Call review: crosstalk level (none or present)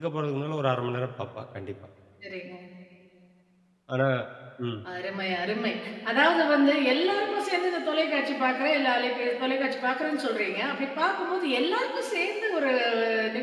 none